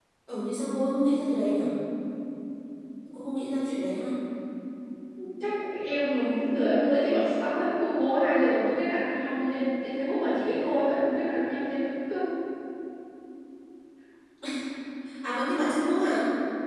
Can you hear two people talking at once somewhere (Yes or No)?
No